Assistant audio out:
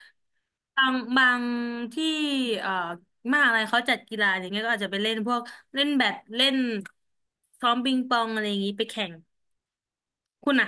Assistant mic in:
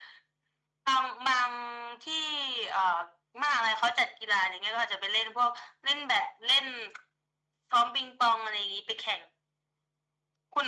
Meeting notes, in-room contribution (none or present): none